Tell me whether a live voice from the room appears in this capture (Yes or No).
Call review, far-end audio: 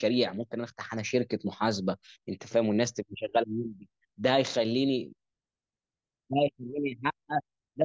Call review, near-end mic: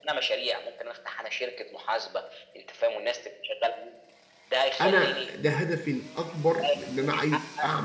Yes